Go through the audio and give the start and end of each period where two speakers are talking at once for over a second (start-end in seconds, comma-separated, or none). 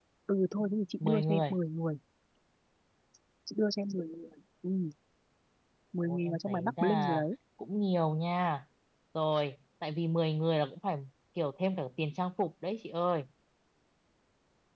6.0-7.2